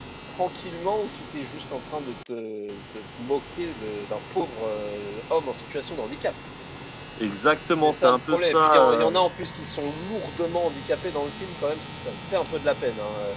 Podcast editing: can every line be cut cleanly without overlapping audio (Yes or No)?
No